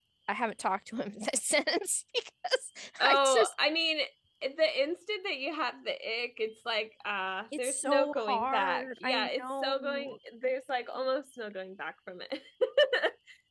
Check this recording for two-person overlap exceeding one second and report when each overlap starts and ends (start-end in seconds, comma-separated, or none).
7.6-10.2